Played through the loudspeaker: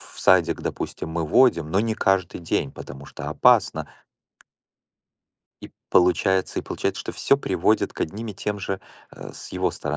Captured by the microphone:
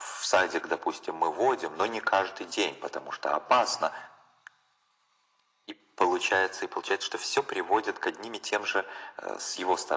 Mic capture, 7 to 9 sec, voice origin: echo only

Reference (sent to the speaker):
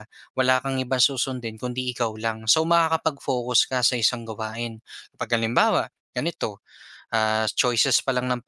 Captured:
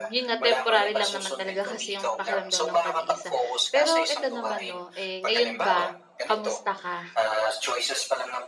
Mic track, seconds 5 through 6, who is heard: both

